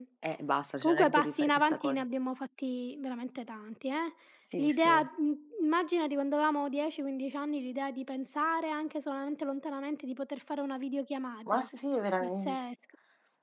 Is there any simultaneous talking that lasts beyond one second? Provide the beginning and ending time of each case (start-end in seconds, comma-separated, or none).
0.8-2.0